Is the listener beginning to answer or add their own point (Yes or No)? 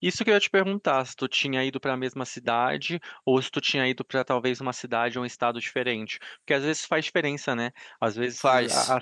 No